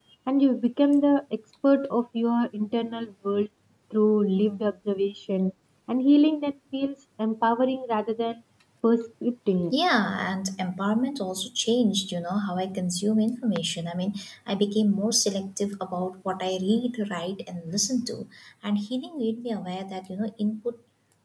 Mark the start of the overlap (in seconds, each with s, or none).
none